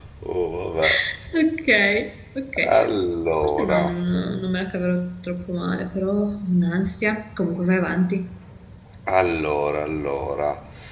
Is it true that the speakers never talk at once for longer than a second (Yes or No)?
Yes